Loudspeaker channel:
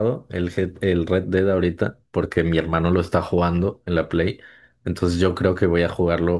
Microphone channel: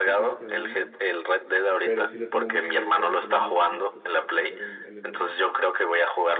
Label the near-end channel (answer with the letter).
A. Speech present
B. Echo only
A